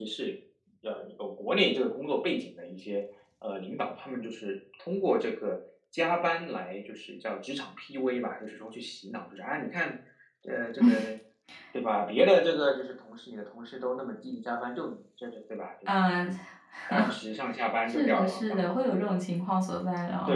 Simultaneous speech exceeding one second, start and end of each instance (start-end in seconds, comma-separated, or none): 17.9-19.2